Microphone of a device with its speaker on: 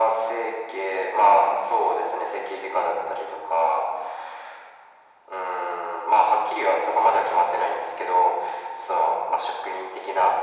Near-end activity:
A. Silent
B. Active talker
A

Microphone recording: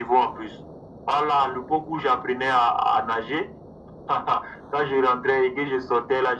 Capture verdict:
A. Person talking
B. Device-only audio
B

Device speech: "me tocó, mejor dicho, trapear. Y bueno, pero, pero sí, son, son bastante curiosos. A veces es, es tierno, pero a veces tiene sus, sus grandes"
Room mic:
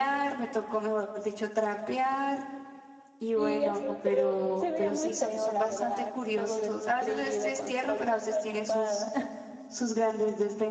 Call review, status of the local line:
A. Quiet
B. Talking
B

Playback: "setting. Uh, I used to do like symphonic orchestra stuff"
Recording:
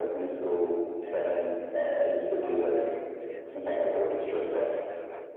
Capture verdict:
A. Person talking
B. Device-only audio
A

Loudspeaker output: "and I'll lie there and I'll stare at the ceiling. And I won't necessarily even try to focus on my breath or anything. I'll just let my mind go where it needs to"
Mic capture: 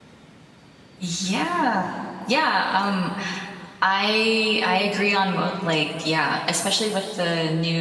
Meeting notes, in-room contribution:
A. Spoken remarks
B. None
A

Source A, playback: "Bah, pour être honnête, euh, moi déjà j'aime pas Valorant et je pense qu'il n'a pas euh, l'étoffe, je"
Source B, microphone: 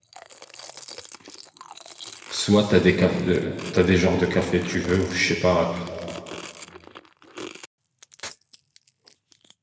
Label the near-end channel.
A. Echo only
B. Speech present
B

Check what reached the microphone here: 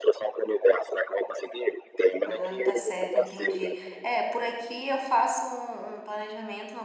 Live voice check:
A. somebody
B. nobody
A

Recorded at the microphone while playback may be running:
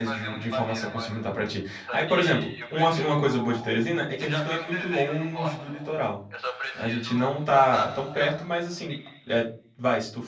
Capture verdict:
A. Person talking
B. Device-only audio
A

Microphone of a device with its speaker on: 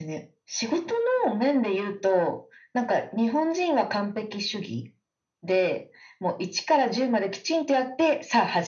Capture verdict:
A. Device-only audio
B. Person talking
A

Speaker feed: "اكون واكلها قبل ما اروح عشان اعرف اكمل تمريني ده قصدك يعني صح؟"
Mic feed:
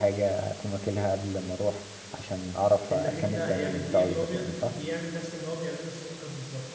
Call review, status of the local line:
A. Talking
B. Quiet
A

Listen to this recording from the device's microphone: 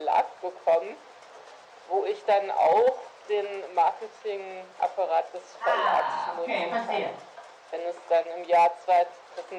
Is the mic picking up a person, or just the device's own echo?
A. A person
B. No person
A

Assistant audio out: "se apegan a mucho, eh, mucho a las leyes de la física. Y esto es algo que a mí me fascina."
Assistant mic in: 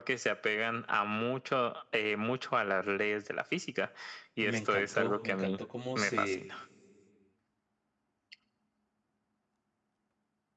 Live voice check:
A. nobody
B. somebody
B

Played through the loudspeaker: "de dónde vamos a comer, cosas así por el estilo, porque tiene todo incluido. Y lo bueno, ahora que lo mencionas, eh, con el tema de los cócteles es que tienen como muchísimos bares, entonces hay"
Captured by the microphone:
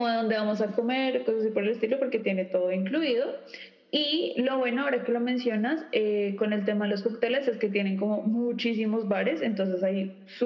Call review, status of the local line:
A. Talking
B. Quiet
B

